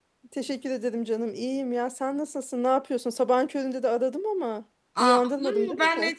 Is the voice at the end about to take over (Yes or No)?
Yes